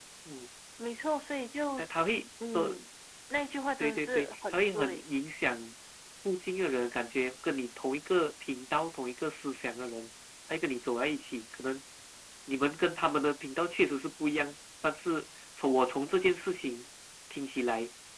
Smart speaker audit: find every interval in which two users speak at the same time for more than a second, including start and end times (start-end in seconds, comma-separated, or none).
3.8-5.0